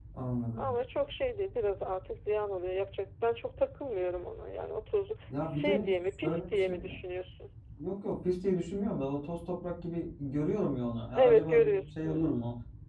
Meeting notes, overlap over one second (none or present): present